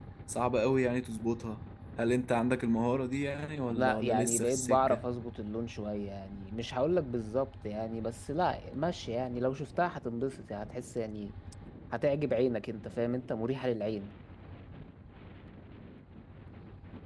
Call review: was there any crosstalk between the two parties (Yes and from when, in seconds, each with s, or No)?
Yes, from 3.7 s